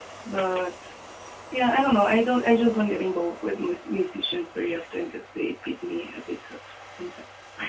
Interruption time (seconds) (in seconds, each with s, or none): none